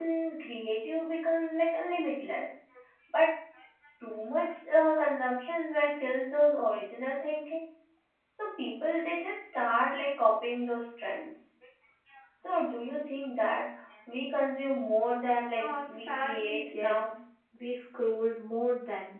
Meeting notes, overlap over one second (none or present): present